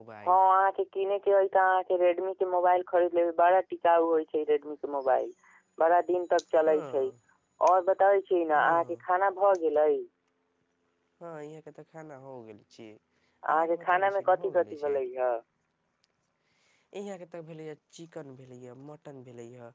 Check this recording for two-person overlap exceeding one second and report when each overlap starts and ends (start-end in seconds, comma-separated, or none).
13.5-15.0